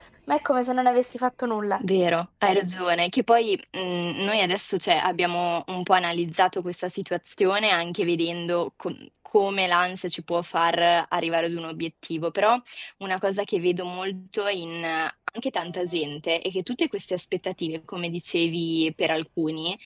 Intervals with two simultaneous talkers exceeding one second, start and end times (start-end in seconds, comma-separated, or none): none